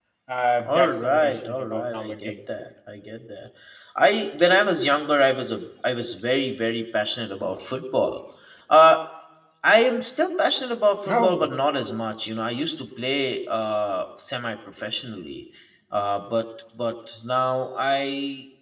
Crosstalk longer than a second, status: present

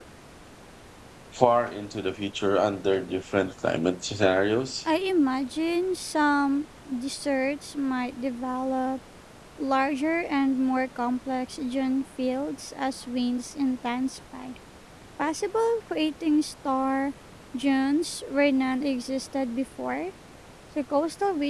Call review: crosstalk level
none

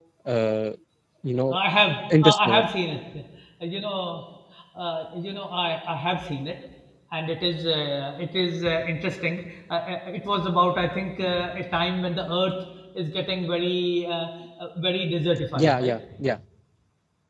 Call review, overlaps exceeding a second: none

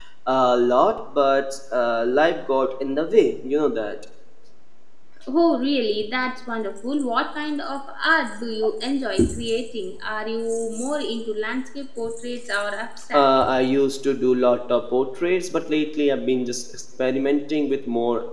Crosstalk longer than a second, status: none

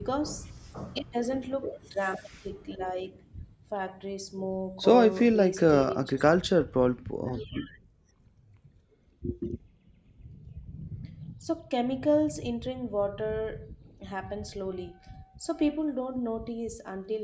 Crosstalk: present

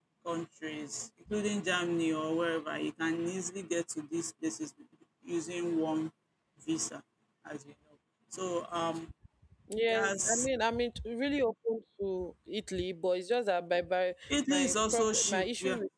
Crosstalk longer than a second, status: present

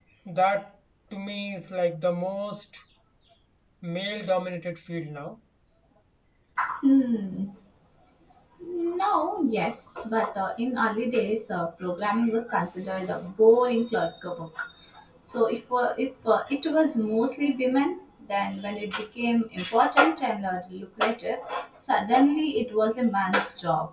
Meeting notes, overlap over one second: none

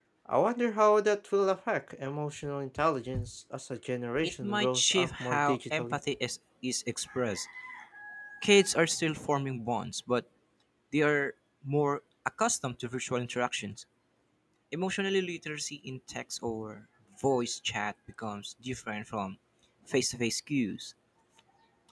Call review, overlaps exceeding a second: present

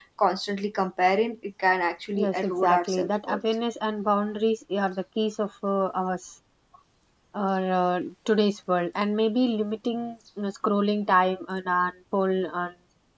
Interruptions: present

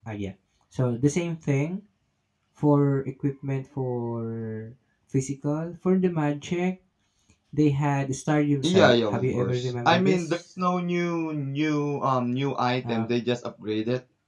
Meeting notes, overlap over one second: present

